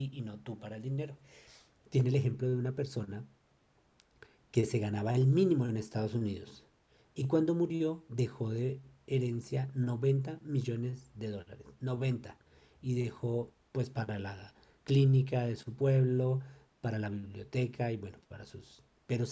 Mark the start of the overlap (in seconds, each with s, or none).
none